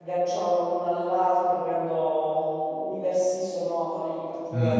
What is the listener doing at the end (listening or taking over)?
taking over